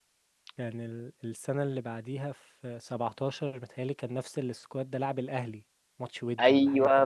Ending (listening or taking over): taking over